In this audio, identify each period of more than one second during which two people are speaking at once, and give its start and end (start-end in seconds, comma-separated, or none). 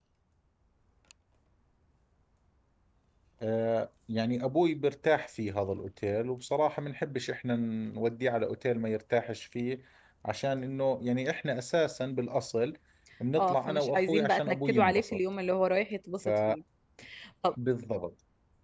13.4-15.2